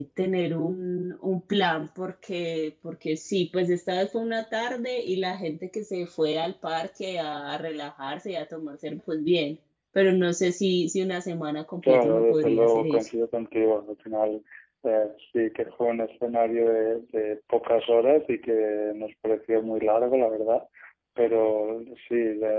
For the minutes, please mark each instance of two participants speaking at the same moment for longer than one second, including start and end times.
11.9-13.1

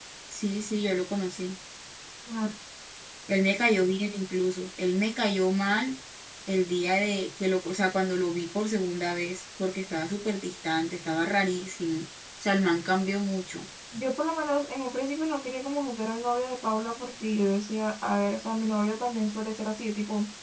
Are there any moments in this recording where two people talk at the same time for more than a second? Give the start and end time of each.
none

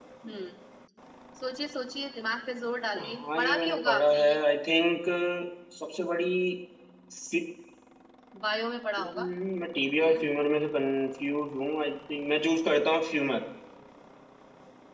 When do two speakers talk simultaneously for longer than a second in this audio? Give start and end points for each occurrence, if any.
3.0-4.4

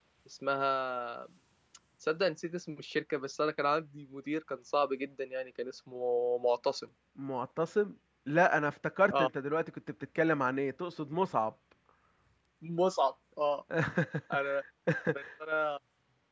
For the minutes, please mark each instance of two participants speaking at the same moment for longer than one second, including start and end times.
none

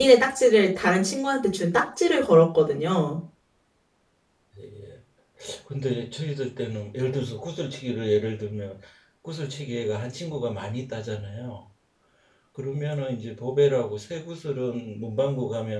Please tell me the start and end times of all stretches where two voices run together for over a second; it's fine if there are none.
none

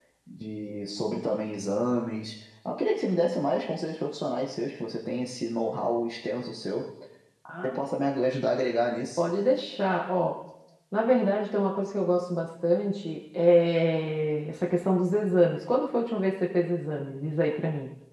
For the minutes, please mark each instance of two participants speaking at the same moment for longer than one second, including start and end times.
none

